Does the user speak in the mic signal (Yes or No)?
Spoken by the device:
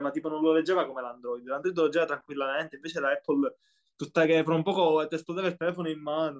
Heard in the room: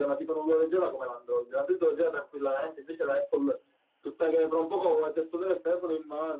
No